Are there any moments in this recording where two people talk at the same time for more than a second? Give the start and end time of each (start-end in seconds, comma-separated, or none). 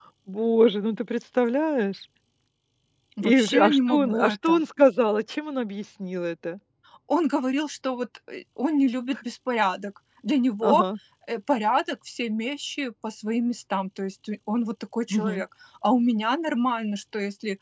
3.2-4.6